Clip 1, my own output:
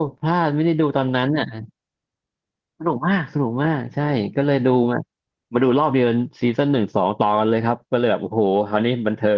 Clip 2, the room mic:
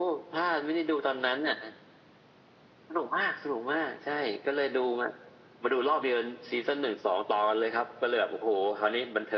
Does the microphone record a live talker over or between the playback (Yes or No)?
No